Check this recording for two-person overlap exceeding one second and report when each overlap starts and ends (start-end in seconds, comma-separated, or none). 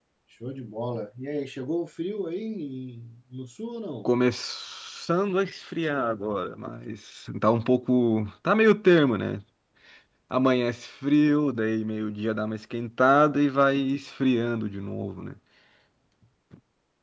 none